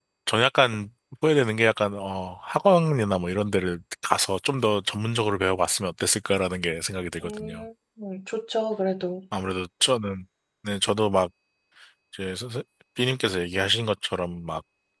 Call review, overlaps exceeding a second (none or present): none